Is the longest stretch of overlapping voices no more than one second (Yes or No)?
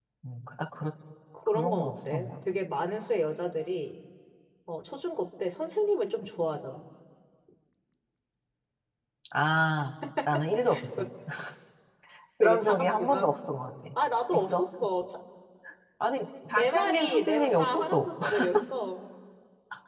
No